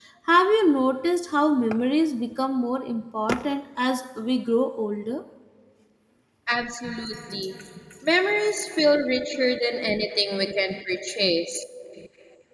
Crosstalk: none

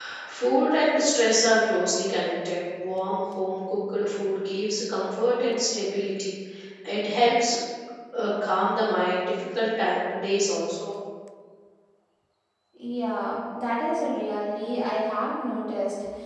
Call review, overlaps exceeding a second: none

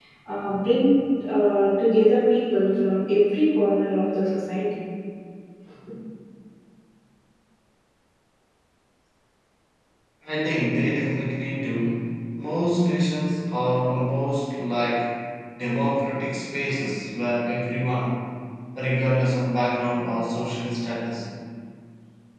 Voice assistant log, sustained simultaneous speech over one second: none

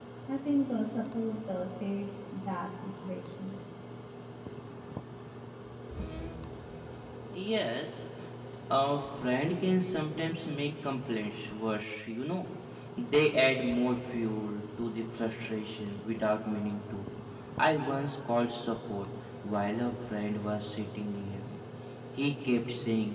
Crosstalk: none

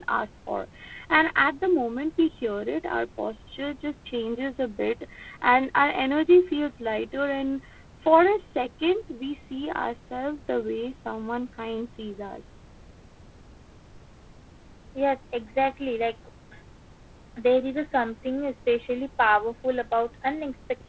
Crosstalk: none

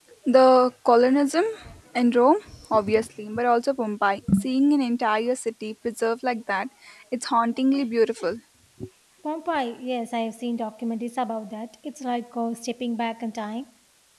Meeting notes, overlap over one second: none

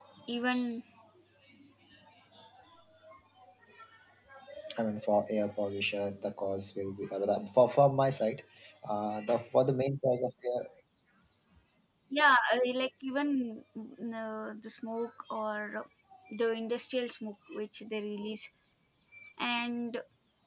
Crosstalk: none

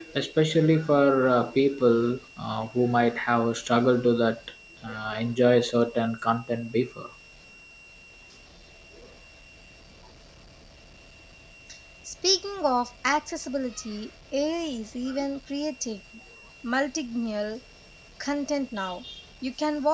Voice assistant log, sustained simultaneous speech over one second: none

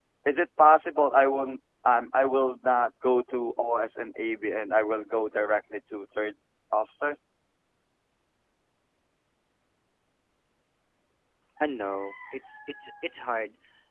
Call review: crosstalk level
none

